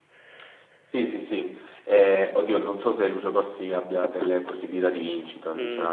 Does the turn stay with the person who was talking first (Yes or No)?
No